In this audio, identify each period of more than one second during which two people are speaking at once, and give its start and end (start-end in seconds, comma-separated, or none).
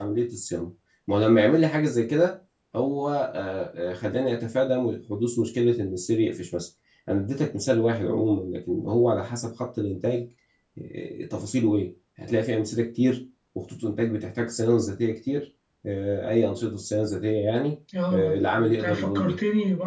18.1-19.4